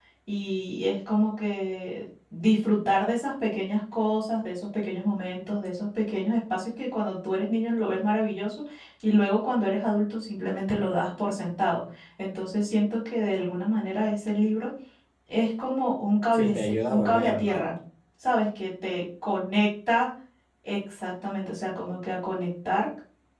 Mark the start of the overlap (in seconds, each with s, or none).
16.3 s